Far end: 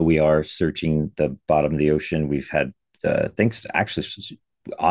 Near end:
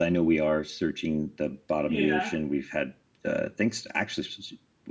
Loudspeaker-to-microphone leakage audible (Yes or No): Yes